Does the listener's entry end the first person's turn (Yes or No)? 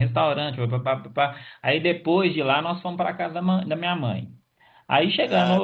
No